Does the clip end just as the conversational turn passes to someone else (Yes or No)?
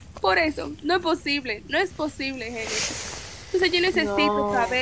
No